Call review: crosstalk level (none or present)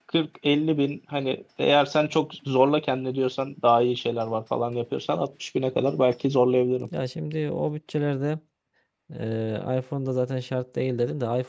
none